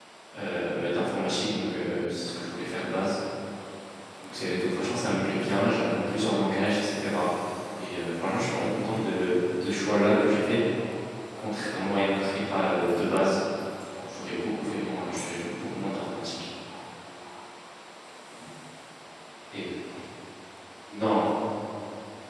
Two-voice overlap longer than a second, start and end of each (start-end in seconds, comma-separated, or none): none